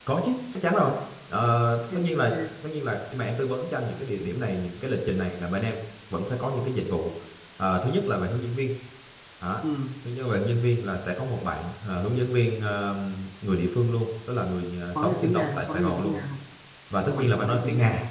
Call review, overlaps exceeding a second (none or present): present